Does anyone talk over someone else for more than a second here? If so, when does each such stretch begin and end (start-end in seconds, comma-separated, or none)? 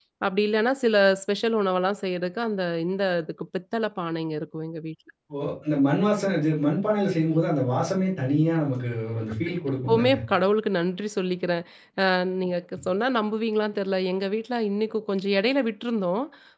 none